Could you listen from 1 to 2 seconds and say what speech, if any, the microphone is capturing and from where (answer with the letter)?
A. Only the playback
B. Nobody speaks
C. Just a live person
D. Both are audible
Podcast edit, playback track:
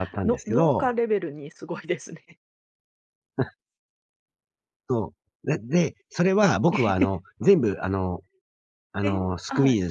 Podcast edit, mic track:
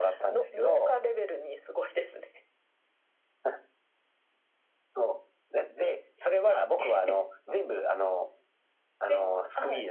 A